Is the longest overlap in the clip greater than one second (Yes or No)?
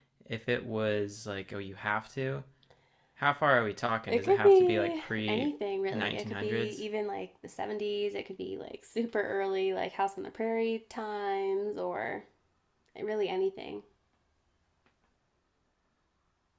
Yes